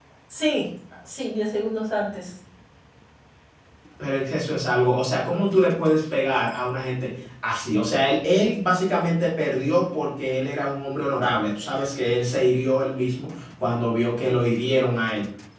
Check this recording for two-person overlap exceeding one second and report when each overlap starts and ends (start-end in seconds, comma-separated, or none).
none